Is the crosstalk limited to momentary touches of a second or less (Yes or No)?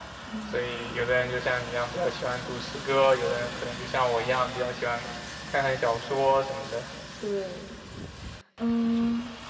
Yes